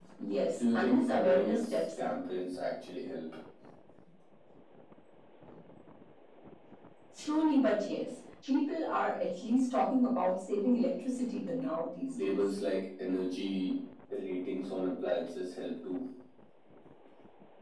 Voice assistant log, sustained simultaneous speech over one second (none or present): present